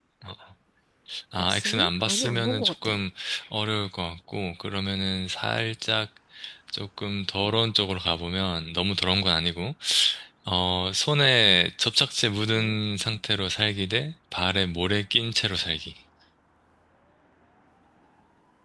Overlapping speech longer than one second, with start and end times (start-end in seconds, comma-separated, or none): 1.4-2.9